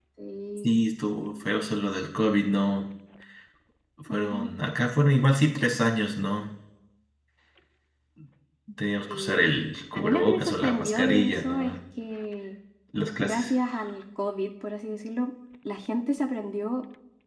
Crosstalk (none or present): present